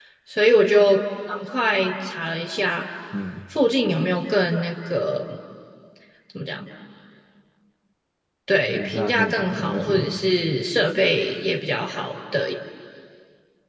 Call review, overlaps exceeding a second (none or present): present